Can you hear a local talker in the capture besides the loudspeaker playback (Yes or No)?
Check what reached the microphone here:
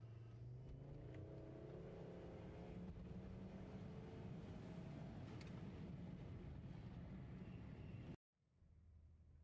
No